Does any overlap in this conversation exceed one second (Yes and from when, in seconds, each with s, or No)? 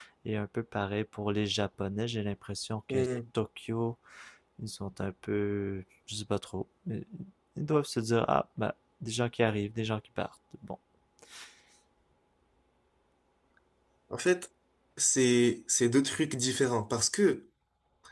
No